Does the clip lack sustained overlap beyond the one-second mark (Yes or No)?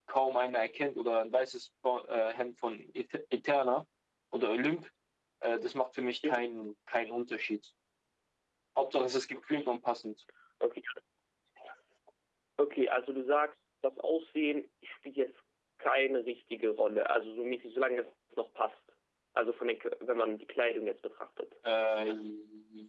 Yes